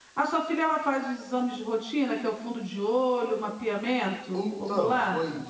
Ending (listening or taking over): taking over